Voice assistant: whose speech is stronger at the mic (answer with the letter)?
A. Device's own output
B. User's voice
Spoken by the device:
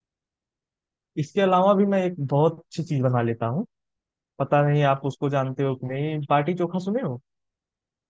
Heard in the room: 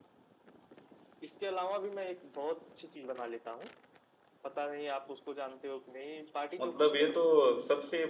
B